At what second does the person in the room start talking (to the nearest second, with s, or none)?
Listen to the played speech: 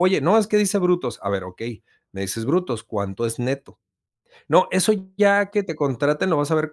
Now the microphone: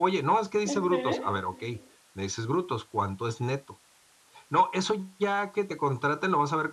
1 s